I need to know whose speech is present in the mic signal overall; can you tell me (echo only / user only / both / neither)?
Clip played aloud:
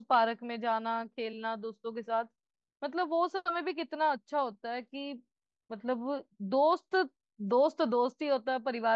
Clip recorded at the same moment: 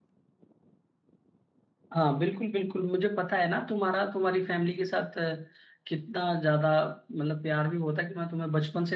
user only